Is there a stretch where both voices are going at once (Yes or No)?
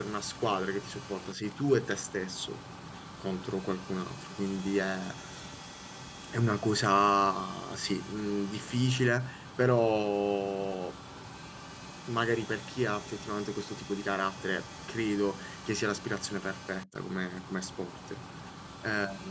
No